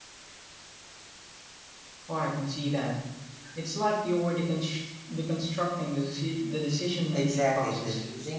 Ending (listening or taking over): taking over